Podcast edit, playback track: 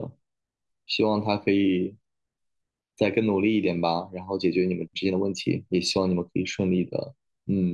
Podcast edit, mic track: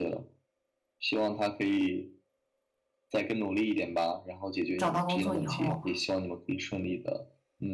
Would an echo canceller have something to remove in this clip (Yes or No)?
Yes